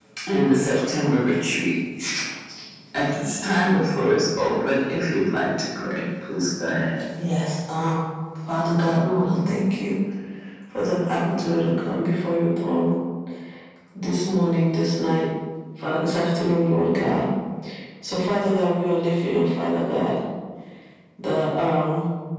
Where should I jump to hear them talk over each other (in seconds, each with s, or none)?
none